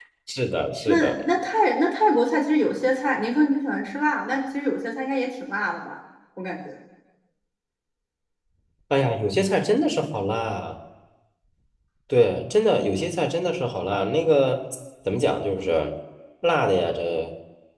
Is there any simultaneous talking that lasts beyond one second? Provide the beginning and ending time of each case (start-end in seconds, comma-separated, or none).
none